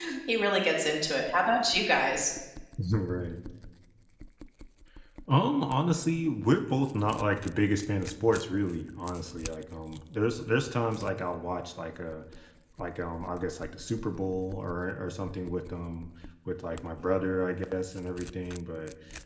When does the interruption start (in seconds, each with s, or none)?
none